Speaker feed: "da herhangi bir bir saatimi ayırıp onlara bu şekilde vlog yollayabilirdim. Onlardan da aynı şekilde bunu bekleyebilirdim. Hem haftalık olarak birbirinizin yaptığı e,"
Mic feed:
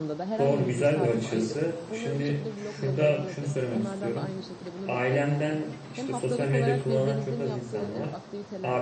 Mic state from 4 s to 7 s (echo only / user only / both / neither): both